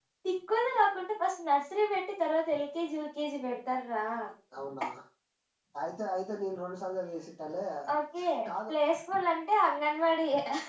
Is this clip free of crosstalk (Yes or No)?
Yes